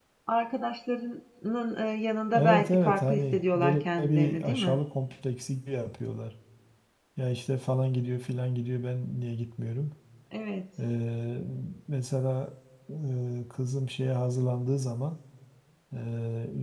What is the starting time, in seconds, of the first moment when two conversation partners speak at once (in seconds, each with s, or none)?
2.3 s